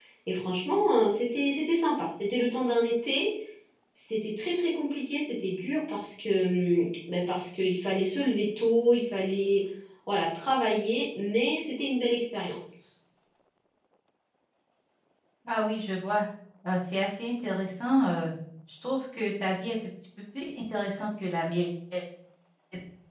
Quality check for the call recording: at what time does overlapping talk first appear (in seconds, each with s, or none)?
none